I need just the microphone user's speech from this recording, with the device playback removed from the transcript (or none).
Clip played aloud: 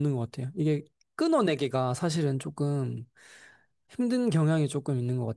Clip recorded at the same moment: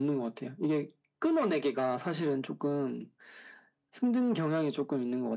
none